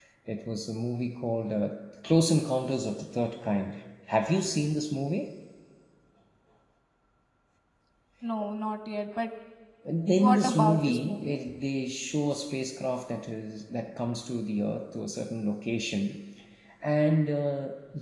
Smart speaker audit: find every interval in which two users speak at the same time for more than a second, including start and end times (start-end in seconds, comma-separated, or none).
10.1-11.4